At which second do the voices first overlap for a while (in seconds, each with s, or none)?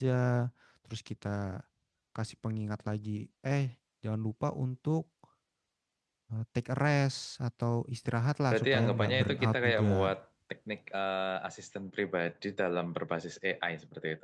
8.5 s